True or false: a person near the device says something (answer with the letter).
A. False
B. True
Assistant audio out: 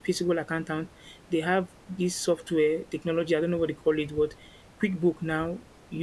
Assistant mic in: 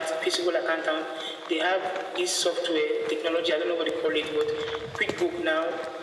A